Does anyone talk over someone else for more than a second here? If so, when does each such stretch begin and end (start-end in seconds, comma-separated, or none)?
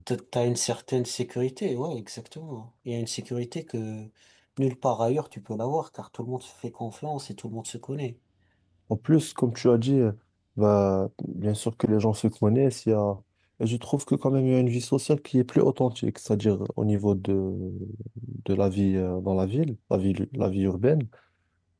none